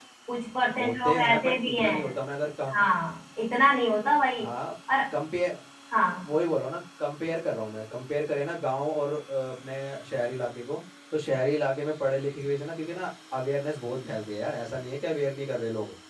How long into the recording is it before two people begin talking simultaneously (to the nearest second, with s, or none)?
1 s